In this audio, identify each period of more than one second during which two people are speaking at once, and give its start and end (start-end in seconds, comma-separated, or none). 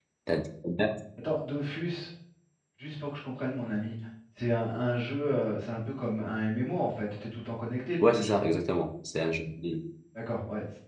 none